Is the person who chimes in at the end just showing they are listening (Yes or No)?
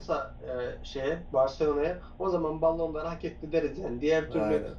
Yes